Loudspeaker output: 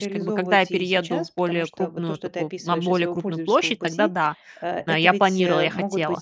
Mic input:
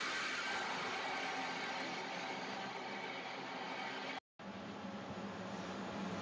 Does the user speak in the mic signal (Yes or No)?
No